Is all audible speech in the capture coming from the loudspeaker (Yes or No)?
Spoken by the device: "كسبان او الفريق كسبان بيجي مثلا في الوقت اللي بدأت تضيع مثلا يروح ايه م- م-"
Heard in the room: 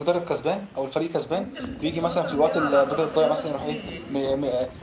No